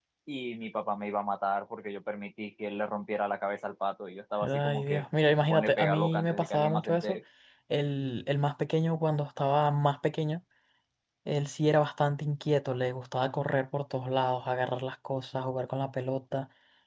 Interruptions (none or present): present